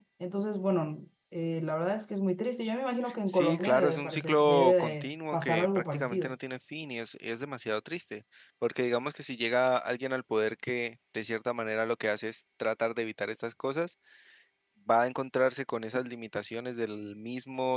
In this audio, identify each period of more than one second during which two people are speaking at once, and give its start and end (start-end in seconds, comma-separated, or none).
3.3-6.4